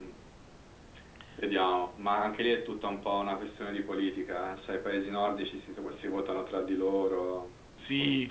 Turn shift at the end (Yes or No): Yes